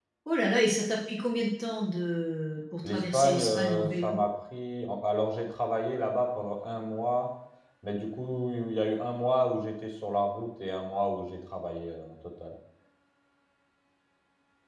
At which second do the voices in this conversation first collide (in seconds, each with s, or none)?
2.8 s